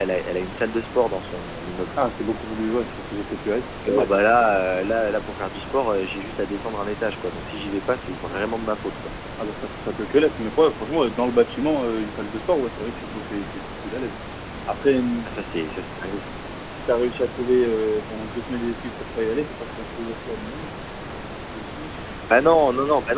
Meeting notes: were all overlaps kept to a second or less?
Yes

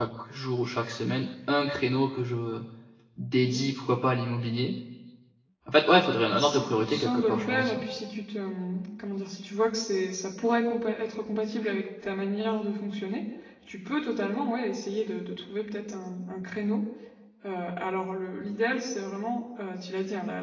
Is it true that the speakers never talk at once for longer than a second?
No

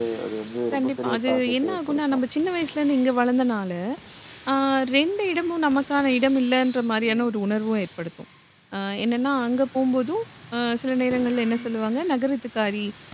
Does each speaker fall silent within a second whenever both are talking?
No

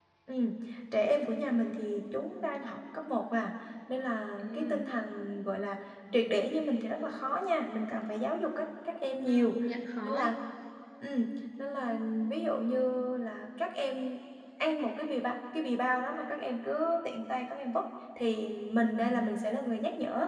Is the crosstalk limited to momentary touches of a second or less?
Yes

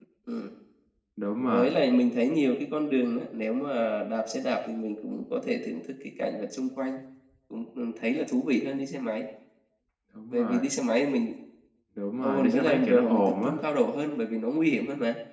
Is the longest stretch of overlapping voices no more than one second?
No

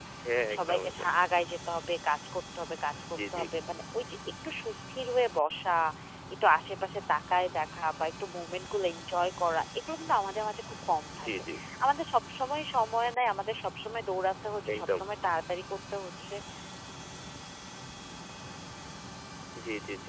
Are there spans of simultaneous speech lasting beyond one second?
No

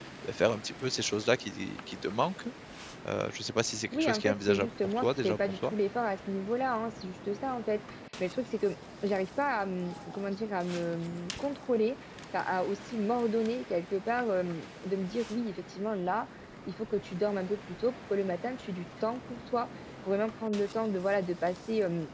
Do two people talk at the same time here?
Yes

